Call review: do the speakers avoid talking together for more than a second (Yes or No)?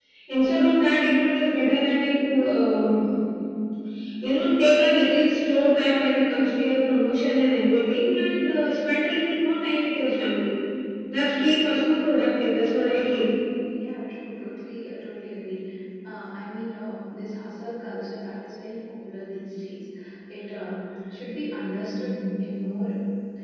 Yes